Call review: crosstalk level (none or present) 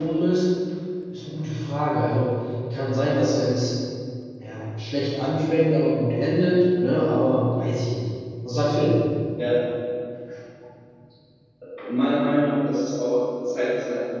none